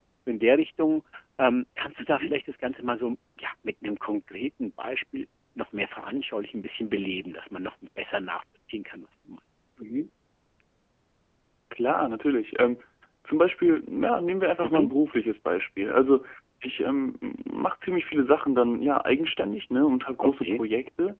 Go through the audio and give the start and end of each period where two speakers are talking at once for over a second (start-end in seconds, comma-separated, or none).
none